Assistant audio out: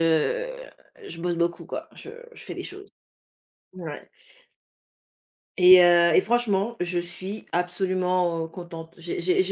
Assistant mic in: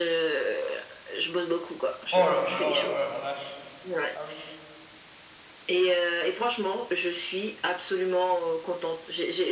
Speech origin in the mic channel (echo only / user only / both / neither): both